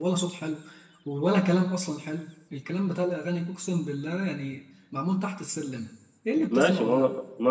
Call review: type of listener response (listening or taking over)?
taking over